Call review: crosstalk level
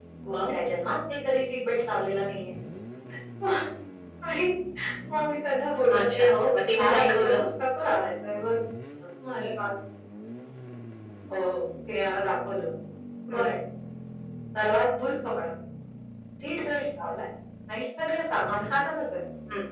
present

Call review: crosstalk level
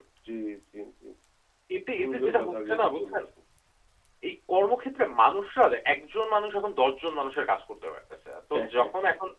present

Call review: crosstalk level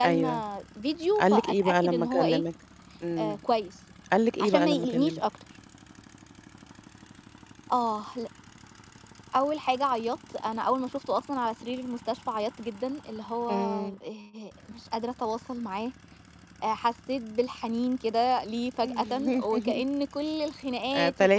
present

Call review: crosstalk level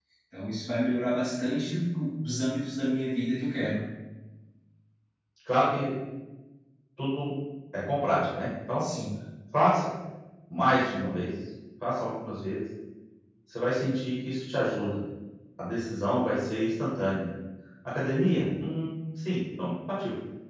none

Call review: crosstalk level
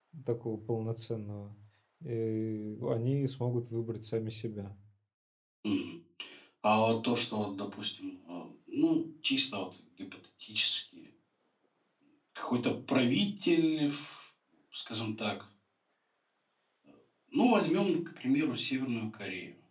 none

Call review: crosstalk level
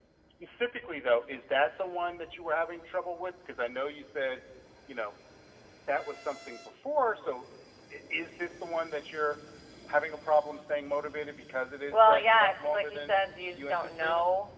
present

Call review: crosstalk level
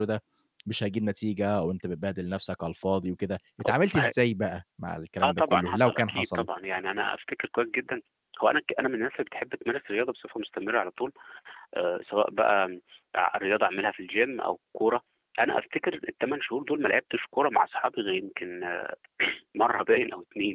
present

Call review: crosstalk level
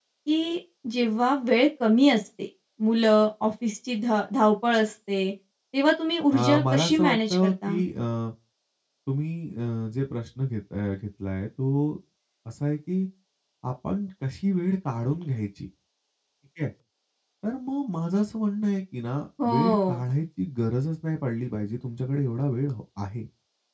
present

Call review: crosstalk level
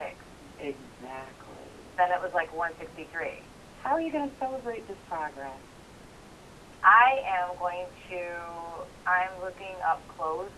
none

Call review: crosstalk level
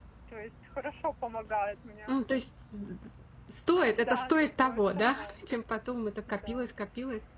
present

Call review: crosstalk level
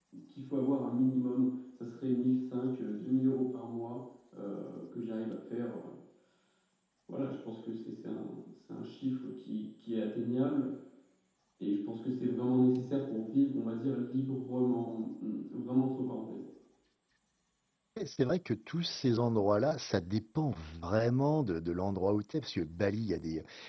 none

